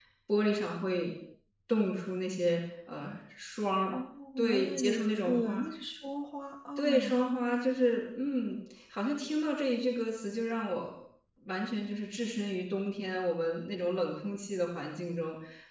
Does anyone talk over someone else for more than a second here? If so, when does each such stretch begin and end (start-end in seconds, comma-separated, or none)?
4.4-5.6